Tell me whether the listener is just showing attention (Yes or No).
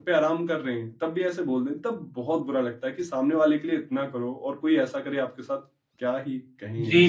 No